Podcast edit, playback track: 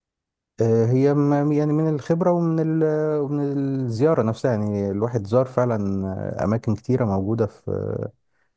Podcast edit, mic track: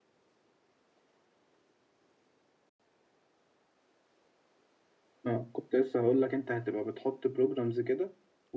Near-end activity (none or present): present